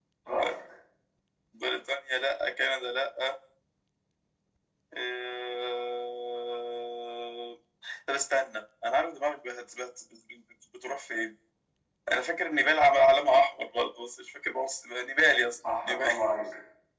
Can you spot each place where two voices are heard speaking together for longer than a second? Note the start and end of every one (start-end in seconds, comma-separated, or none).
none